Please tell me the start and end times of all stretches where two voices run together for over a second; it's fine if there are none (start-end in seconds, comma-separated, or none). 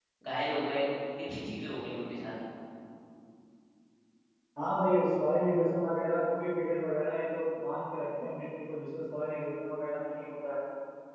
none